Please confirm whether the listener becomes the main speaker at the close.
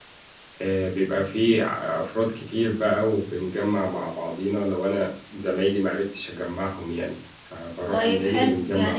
Yes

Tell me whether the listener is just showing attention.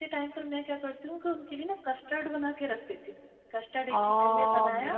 No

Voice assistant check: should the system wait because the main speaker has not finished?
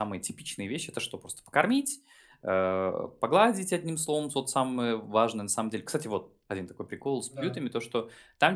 Yes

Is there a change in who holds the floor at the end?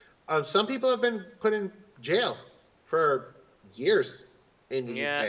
Yes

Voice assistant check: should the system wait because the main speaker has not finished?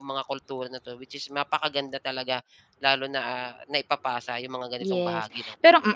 No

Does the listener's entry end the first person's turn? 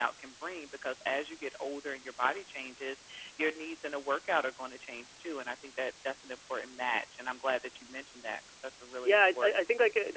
Yes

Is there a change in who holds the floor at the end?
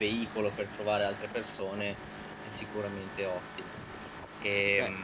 Yes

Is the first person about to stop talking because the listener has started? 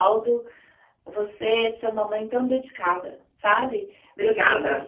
No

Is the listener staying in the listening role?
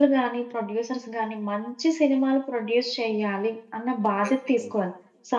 Yes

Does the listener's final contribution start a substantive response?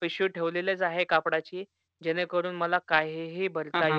Yes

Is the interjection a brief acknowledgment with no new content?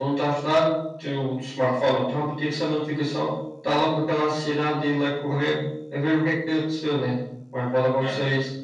Yes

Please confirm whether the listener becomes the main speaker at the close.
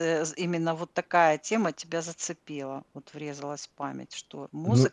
Yes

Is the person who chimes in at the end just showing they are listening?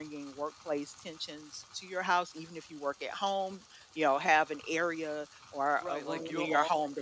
No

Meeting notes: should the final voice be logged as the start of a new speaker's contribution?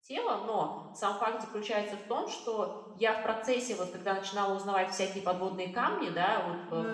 No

